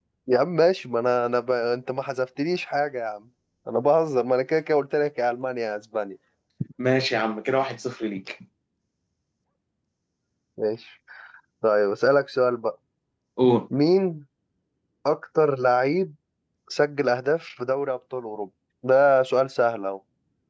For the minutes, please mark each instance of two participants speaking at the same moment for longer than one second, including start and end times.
none

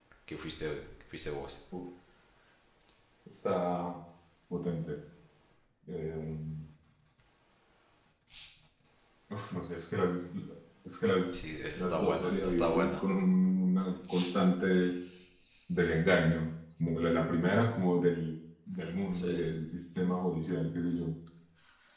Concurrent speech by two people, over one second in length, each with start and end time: 11.3-13.0

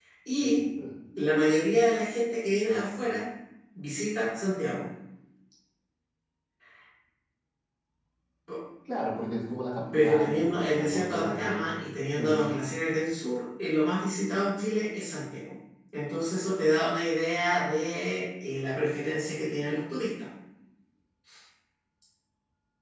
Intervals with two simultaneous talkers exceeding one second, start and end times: 9.9-11.6

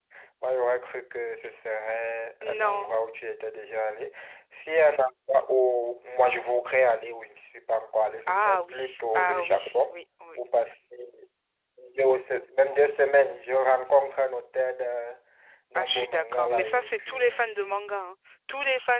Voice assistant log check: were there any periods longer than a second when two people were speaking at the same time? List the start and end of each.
8.3-9.9, 15.8-17.5

